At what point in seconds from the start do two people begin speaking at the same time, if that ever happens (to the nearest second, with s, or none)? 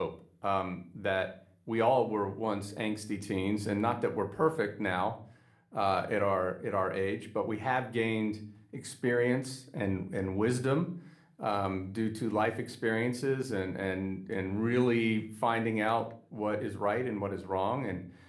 none